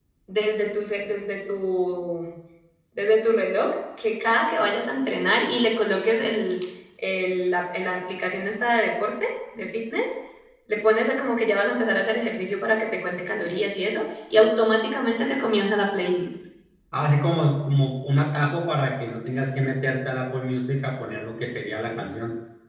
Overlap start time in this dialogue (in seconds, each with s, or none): none